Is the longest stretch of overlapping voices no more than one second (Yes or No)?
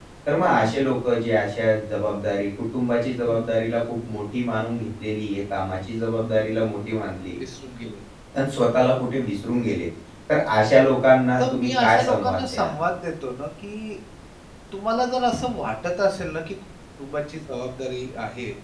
No